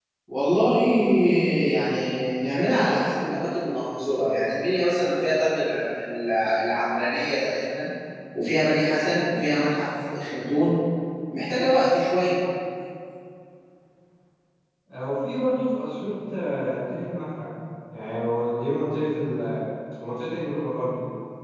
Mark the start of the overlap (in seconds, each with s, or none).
none